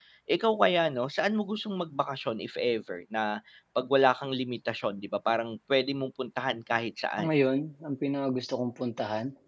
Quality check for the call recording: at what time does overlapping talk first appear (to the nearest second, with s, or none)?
none